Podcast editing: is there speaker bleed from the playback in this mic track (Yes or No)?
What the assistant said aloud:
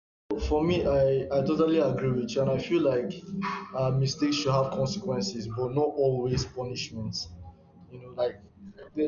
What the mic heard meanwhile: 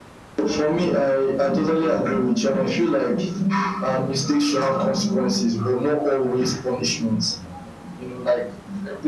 Yes